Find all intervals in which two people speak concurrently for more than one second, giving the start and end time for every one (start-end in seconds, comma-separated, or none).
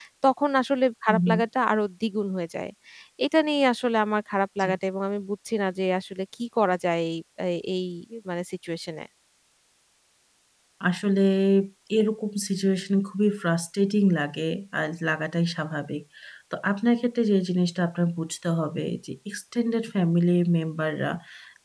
none